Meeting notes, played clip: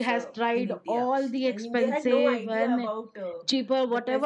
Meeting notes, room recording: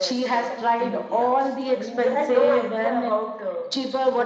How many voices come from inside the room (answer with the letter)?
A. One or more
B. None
B